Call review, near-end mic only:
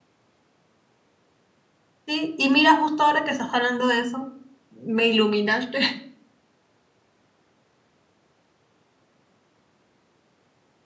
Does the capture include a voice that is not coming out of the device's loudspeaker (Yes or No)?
Yes